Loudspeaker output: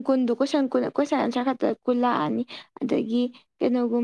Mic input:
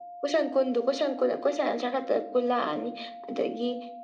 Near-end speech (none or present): none